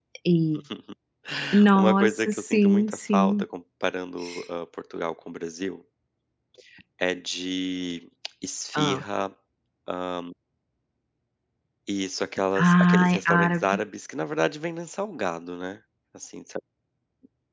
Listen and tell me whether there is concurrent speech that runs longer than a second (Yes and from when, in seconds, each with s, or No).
Yes, from 1.8 s